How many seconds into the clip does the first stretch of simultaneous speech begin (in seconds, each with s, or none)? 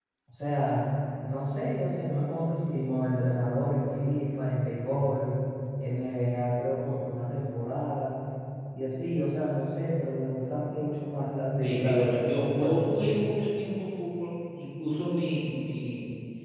11.6 s